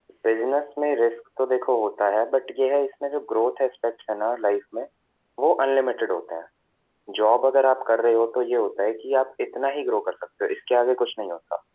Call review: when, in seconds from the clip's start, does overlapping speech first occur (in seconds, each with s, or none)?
none